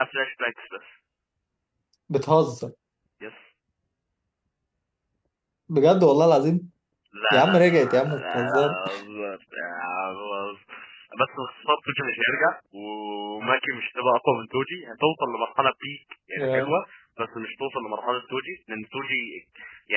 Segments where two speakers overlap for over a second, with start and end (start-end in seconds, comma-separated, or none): 7.3-8.8